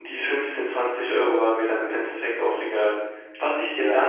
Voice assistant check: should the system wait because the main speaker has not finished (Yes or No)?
Yes